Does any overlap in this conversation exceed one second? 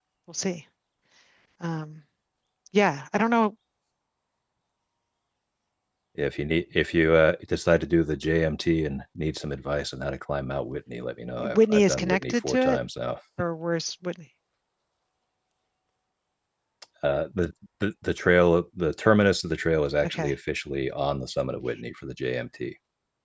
Yes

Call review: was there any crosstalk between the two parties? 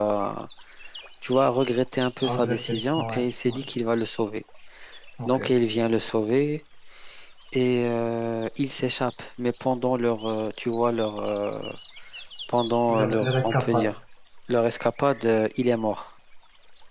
Yes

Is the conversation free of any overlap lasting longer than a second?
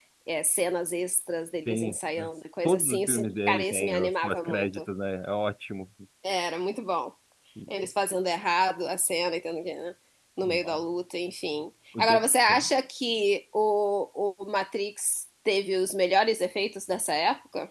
No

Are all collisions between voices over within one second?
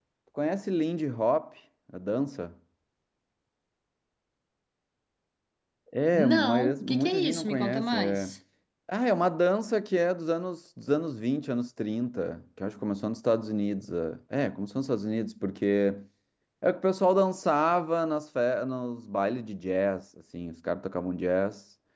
No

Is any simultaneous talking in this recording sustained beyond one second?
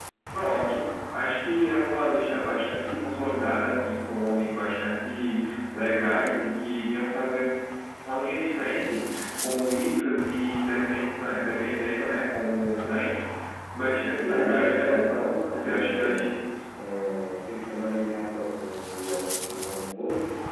Yes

